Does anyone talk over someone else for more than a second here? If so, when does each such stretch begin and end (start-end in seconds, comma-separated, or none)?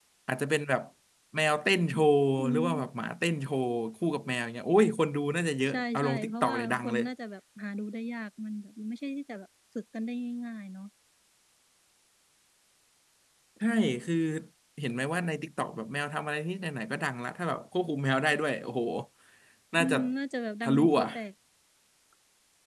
5.7-7.0